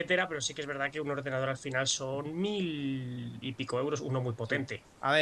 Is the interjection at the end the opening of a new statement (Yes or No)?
Yes